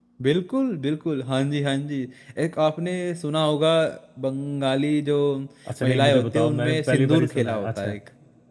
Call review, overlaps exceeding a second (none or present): present